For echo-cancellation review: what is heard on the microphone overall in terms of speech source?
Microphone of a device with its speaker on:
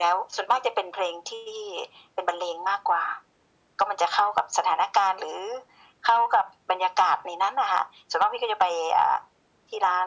echo only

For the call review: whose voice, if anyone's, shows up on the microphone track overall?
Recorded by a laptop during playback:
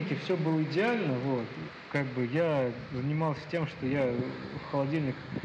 echo only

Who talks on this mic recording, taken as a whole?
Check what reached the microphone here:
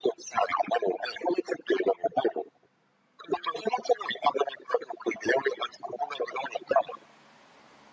echo only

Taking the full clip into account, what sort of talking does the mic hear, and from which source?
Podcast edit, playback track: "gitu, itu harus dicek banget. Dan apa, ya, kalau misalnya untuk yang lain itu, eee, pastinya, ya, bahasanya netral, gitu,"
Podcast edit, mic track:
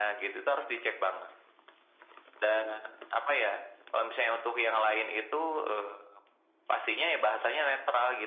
echo only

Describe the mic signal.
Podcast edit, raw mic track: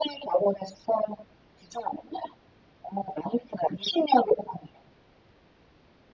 echo only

